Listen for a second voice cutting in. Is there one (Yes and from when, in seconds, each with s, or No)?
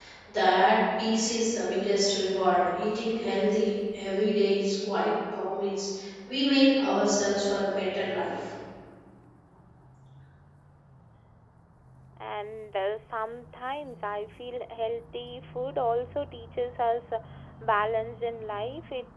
No